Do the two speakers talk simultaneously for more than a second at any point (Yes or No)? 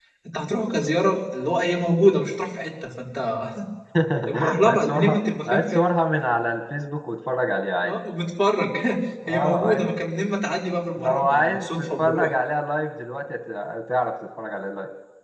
Yes